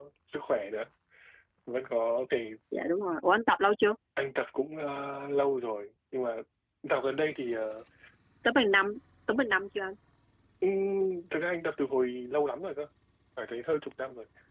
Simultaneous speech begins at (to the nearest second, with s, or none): none